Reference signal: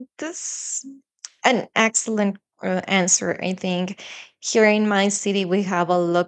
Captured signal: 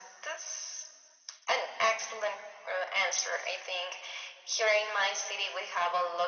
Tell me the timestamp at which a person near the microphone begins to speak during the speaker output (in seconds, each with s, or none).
none